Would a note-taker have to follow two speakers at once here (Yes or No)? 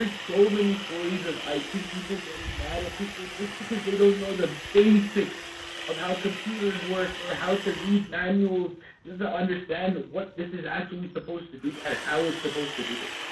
No